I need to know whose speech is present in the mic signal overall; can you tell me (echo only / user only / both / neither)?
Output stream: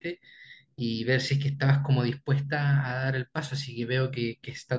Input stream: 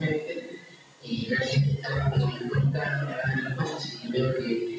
echo only